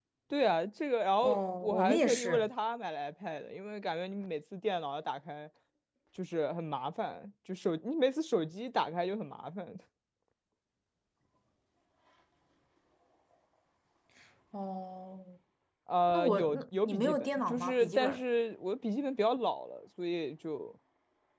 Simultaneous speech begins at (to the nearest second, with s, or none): 1 s